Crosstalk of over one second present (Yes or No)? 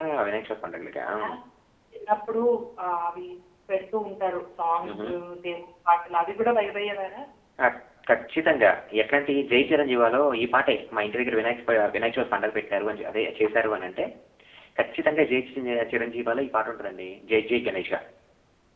No